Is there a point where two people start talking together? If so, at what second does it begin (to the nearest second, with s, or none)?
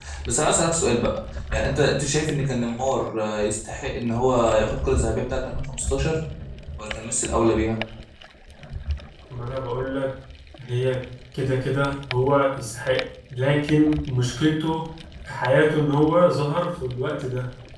none